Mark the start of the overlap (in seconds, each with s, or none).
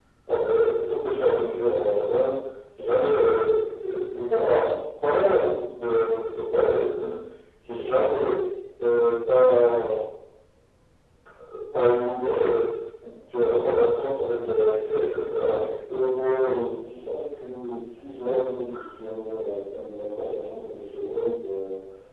none